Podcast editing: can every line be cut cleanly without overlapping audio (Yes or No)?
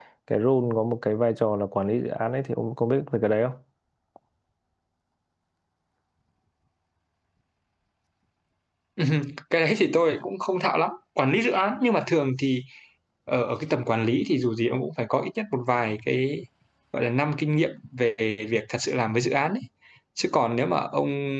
Yes